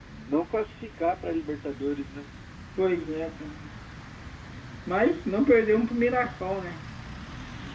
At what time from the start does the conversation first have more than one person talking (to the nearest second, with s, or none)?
none